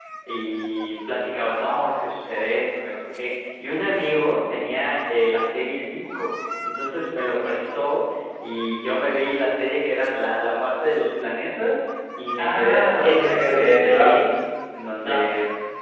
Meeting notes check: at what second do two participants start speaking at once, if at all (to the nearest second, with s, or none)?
12 s